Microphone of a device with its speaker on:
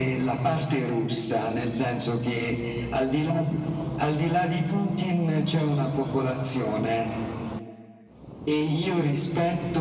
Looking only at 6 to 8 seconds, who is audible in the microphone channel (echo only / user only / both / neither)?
echo only